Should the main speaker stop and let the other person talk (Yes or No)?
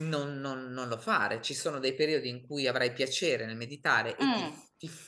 No